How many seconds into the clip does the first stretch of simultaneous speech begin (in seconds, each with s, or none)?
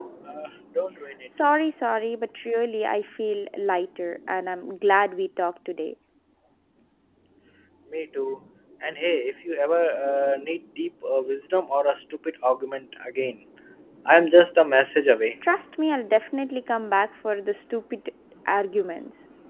none